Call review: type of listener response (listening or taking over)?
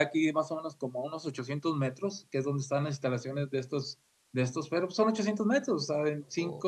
listening